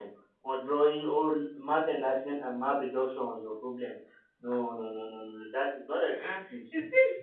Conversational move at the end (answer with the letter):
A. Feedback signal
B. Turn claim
B